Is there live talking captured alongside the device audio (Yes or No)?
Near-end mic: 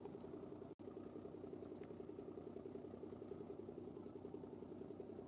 No